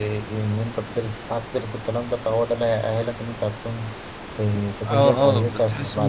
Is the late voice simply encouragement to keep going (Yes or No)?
No